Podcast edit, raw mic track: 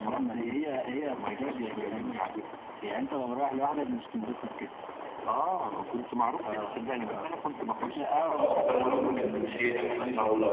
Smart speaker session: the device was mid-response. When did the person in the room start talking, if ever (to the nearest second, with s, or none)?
8 s